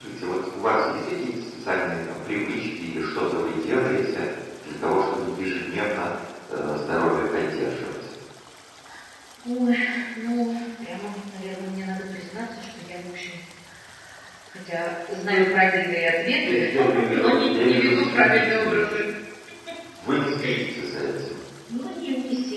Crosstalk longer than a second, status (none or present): present